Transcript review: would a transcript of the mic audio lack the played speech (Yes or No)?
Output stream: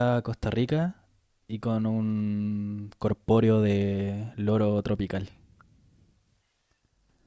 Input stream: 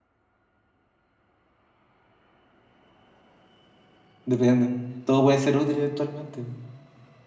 Yes